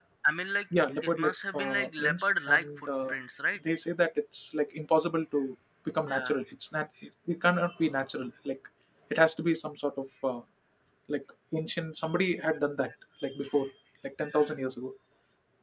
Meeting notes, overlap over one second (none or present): present